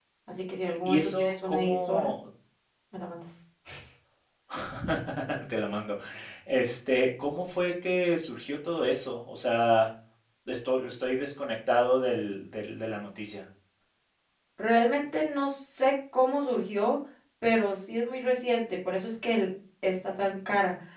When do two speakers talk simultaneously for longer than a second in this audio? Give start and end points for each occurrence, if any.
0.8-2.1

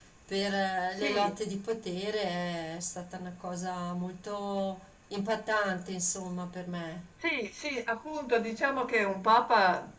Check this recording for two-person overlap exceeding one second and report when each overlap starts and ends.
none

